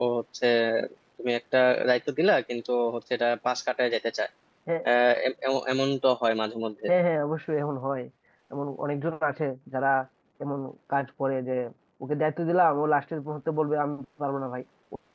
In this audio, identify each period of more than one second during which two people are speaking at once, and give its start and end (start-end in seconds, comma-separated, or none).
none